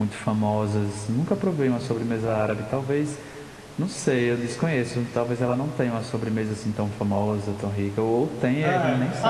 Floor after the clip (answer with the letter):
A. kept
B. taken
B